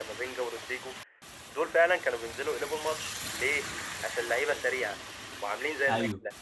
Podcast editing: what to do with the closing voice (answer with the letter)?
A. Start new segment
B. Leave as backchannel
B